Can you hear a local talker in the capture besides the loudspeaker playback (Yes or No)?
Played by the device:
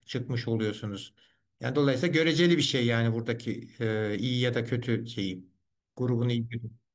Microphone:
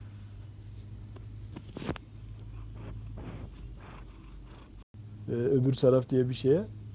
Yes